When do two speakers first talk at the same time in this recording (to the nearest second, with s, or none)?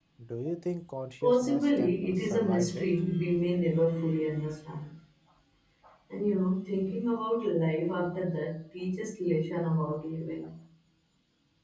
1 s